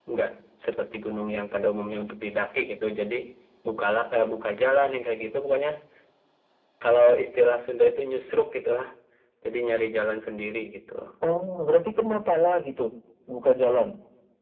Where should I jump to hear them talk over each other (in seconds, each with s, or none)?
none